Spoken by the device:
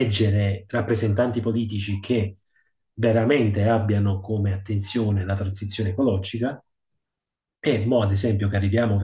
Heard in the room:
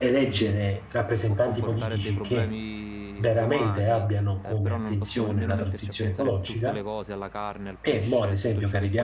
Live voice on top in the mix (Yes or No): No